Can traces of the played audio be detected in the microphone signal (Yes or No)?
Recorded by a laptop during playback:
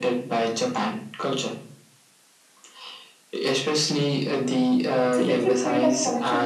Yes